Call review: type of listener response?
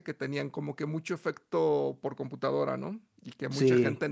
taking over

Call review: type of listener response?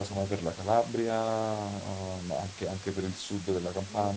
taking over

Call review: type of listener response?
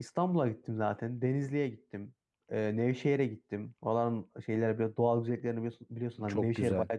listening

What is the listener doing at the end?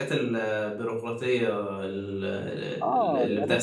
taking over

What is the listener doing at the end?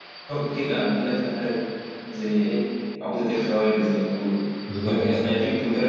listening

